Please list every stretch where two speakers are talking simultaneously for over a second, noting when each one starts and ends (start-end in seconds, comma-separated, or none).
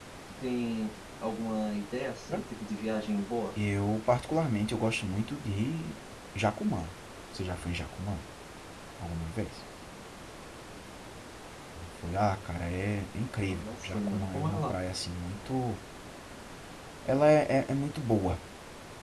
13.5-14.8